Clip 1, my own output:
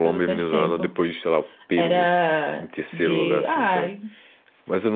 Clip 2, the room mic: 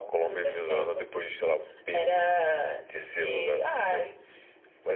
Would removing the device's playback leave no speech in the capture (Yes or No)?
Yes